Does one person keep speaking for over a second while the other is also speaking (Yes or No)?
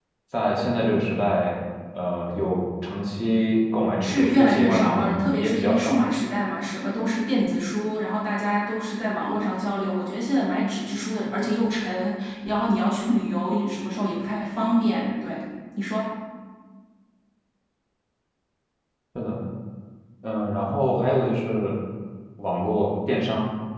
Yes